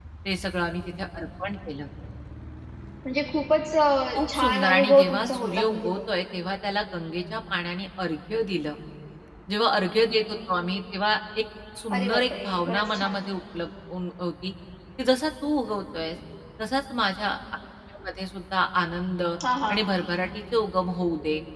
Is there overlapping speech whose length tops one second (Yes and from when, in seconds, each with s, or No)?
Yes, from 4.3 s